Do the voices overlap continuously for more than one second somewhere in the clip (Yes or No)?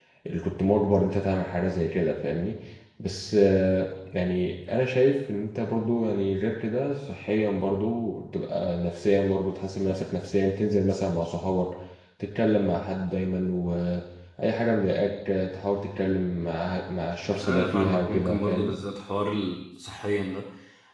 Yes